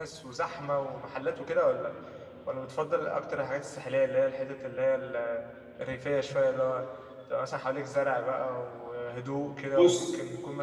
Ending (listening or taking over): listening